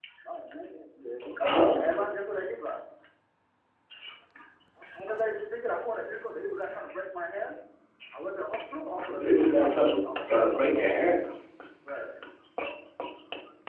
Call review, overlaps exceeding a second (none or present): present